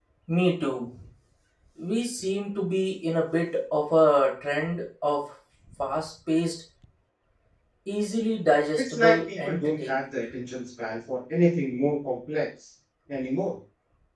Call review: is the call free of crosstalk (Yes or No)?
No